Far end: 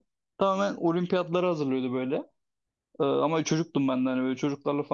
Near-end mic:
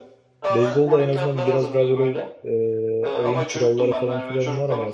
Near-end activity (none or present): present